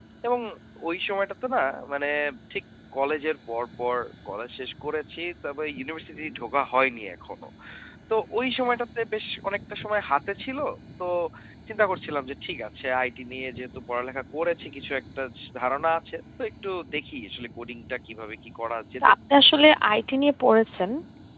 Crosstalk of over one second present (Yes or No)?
No